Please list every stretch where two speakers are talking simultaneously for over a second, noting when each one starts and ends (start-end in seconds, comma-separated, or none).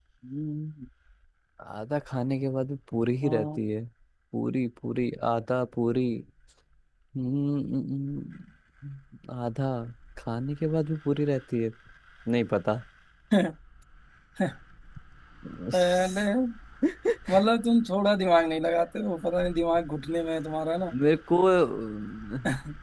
none